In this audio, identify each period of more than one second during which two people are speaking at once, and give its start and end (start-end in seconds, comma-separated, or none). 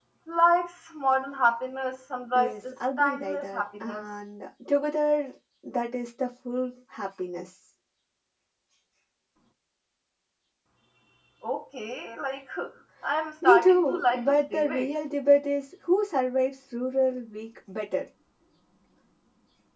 2.3-4.0, 13.4-14.9